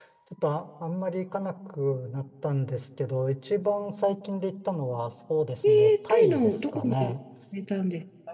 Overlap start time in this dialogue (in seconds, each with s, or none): 5.6 s